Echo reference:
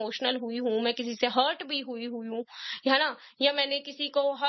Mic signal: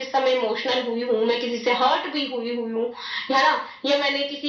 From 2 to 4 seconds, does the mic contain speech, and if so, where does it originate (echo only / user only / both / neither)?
echo only